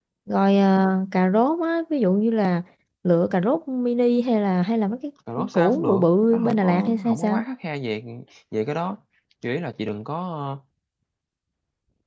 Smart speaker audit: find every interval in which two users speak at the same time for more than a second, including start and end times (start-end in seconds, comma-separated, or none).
5.5-7.4